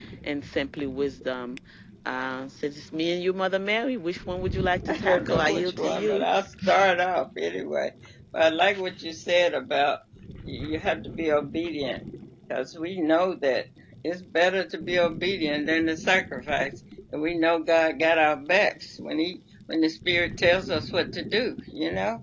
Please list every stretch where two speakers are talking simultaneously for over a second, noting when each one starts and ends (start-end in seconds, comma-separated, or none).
4.9-6.2